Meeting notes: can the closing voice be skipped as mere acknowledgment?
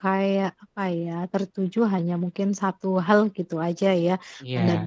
Yes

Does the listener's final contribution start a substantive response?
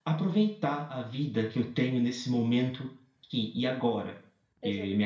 No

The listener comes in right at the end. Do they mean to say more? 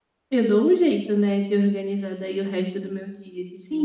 Yes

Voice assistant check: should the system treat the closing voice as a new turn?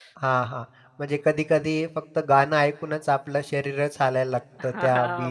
Yes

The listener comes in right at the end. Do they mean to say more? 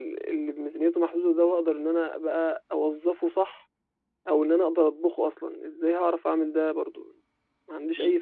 Yes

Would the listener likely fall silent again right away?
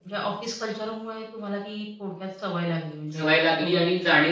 No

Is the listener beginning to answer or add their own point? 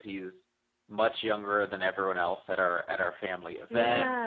No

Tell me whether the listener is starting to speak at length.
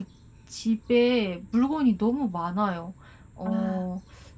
No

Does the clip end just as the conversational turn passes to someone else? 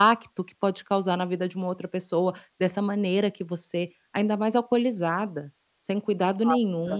Yes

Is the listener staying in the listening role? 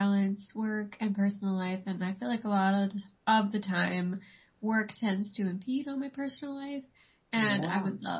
Yes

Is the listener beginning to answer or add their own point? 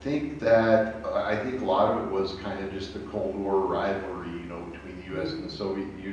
No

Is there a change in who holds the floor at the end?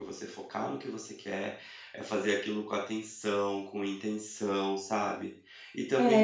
Yes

